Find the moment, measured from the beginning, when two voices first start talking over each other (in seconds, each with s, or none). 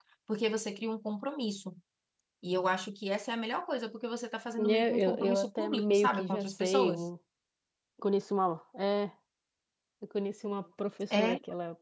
4.6 s